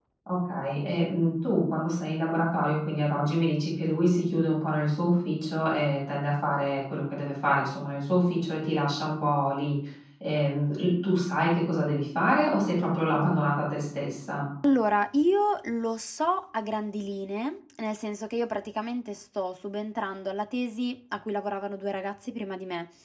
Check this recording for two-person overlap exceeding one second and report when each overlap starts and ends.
none

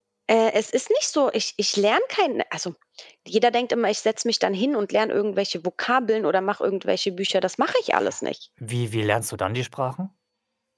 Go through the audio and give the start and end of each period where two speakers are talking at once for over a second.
none

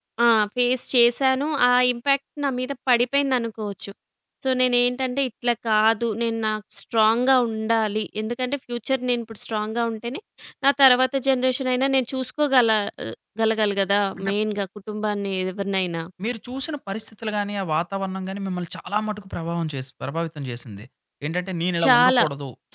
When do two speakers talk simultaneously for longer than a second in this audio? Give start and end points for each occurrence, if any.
none

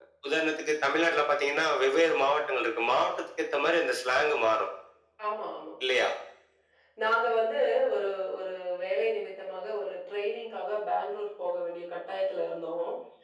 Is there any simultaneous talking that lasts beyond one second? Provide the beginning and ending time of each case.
none

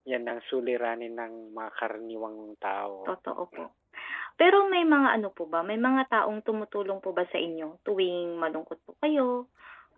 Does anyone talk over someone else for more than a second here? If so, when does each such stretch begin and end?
none

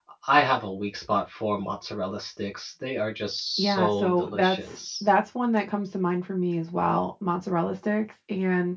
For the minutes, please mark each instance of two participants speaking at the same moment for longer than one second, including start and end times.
3.6-5.1

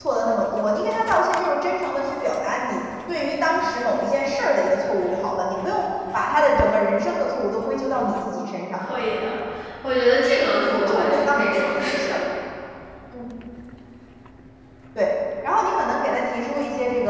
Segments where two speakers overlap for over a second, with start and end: 10.7-12.2

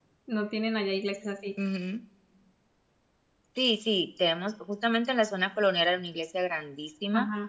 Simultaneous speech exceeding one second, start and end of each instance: none

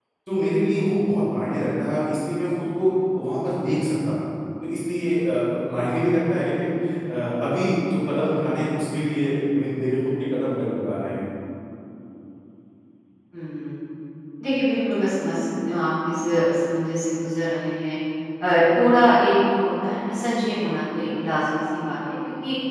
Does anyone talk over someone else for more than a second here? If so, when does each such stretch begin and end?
none

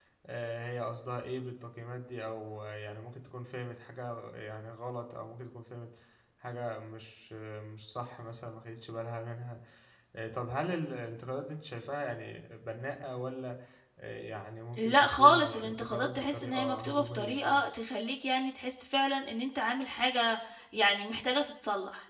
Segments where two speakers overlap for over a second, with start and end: 14.8-17.6

